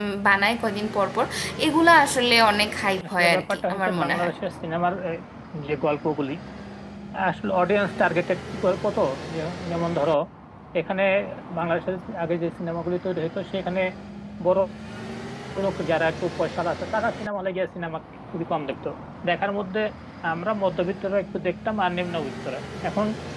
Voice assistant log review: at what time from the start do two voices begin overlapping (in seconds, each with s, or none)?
3.0 s